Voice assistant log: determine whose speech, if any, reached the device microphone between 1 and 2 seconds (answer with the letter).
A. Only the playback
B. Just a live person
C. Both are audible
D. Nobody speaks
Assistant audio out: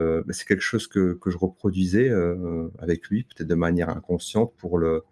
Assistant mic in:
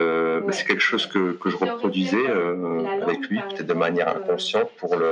C